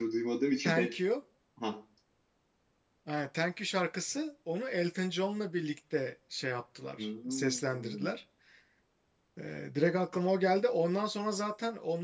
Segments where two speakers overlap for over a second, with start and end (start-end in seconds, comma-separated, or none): 7.0-8.2